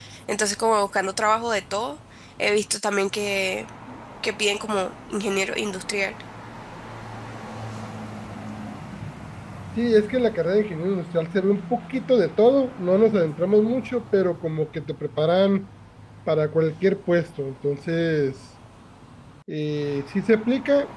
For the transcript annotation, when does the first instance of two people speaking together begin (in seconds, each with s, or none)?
none